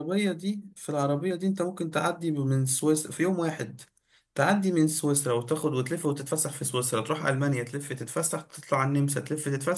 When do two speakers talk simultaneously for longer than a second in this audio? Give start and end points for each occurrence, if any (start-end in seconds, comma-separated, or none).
none